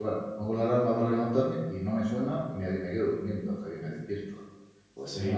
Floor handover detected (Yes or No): No